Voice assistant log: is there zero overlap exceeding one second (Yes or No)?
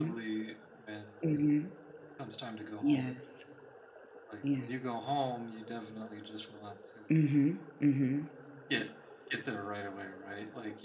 Yes